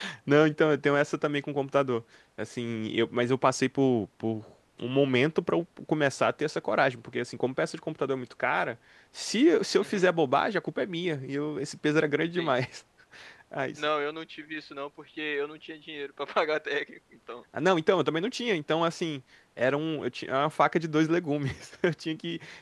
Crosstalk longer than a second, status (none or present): none